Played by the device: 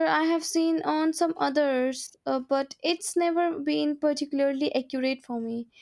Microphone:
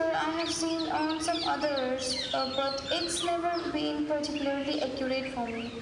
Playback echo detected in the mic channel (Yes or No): Yes